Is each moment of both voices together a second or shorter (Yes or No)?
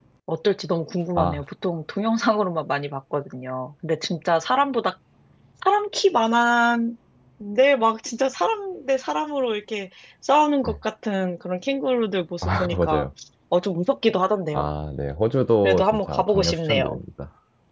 No